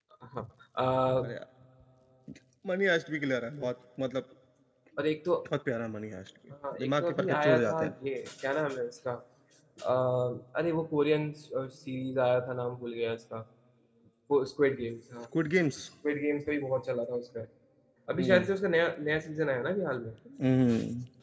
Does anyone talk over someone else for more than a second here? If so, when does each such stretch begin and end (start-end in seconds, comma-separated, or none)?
6.7-7.9